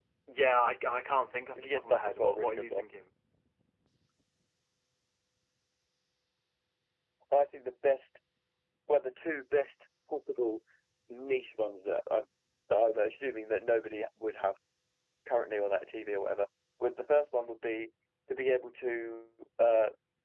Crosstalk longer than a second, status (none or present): present